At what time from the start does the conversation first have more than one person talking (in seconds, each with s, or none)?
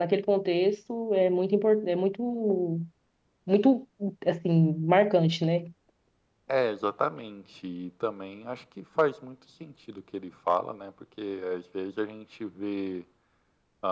none